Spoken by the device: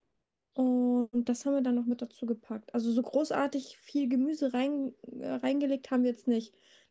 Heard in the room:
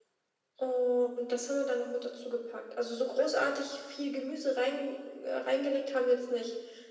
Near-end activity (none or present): none